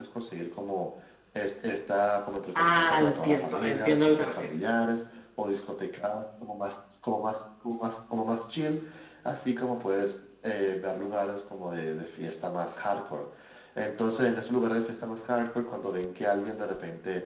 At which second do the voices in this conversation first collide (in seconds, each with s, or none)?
2.5 s